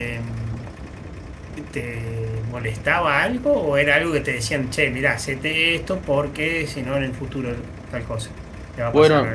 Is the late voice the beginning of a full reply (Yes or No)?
Yes